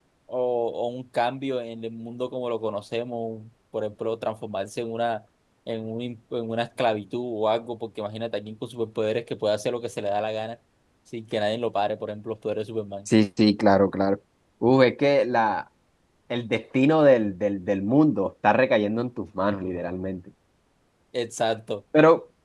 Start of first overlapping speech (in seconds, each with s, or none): none